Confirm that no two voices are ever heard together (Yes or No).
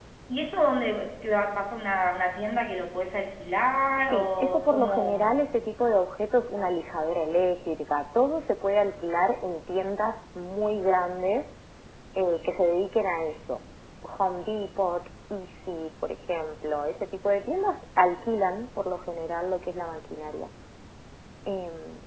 No